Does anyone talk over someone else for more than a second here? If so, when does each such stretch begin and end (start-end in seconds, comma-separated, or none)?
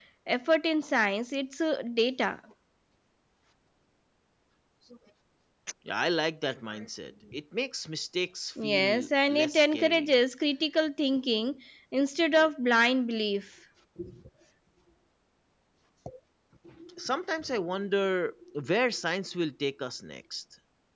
8.6-10.1